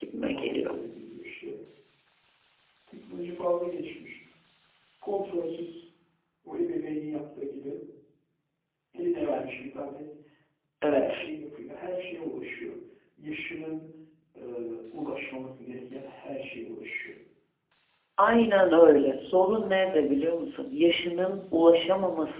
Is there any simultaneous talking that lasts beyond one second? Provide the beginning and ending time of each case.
none

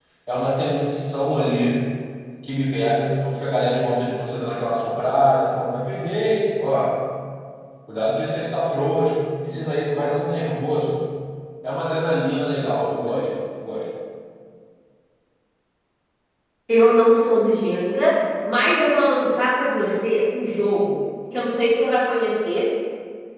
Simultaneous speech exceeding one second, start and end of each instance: none

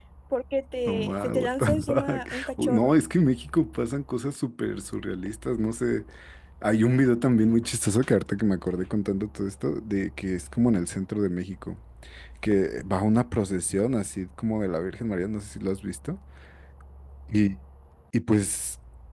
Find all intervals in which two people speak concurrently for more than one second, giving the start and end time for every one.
0.9-2.9

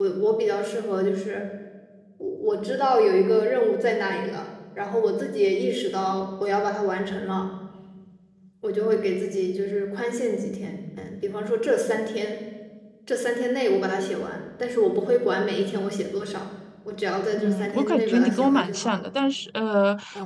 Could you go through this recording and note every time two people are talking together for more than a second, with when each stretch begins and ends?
17.4-19.0

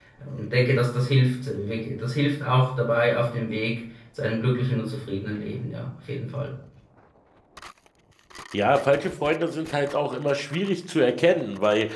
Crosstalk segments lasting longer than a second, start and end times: none

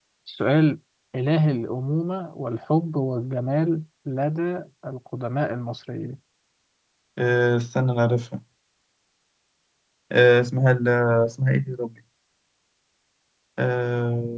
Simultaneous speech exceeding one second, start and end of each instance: none

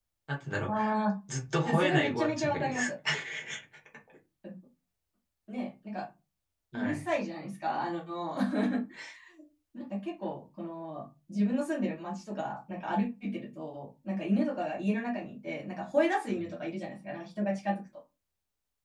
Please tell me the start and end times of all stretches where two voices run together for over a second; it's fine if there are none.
1.6-2.9

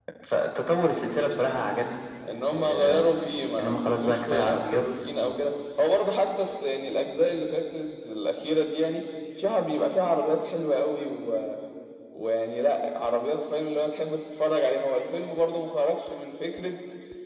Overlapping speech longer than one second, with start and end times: 3.6-4.8

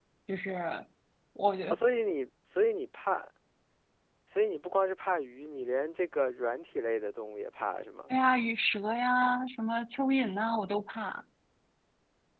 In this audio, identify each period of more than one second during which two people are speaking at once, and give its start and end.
none

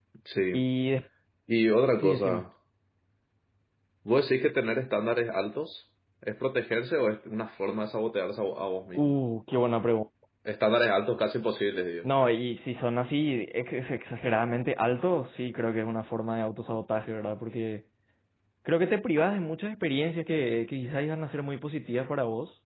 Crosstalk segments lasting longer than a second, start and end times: none

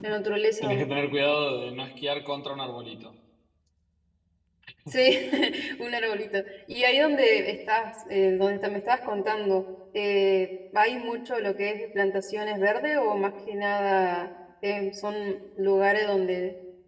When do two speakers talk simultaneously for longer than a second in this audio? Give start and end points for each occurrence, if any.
none

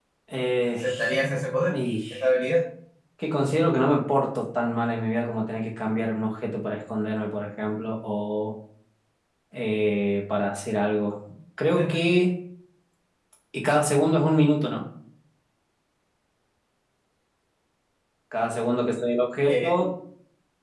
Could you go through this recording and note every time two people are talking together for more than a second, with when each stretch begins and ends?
none

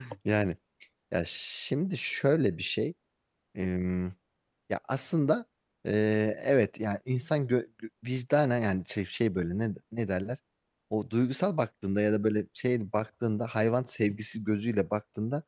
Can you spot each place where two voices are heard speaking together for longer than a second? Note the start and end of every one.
none

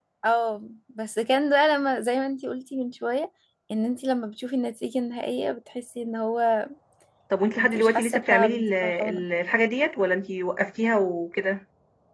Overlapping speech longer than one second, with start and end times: 7.6-9.2

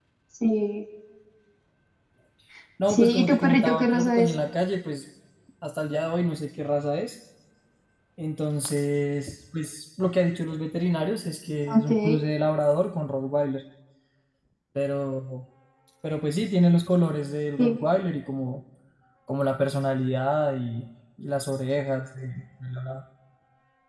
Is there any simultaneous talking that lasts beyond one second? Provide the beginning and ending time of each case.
2.9-4.3

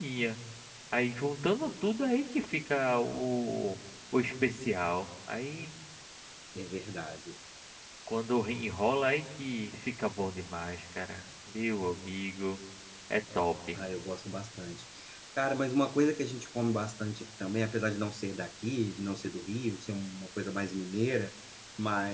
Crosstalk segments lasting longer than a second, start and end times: none

